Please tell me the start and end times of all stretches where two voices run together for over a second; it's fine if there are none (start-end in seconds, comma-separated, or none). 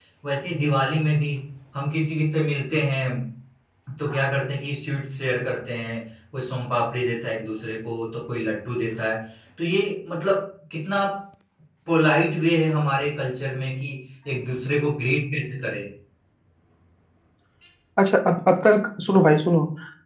none